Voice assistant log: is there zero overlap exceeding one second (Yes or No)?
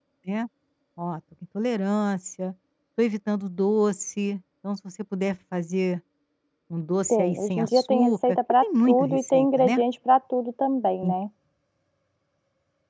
No